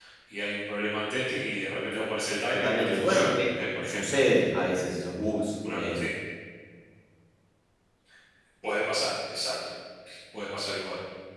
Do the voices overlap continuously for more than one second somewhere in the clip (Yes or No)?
Yes